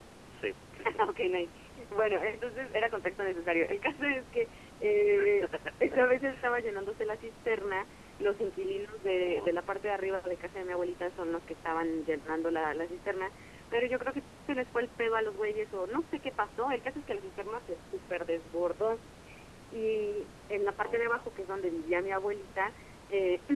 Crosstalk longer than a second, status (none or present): none